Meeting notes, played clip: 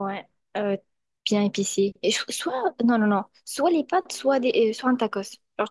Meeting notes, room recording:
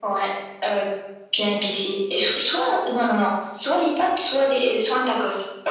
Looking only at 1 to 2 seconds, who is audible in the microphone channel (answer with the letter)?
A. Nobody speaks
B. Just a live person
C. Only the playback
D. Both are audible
C